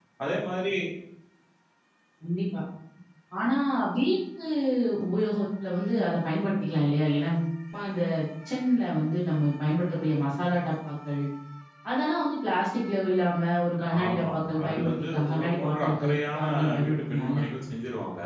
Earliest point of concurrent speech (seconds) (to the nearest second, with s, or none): 14 s